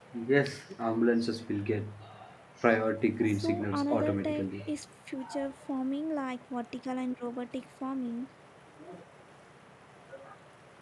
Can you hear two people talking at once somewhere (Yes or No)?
Yes